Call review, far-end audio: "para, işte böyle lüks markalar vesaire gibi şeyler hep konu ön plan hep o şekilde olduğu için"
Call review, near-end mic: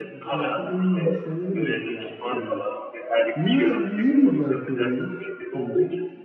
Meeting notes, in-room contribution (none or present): present